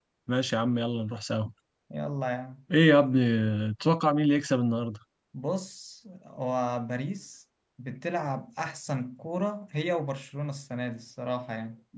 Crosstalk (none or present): none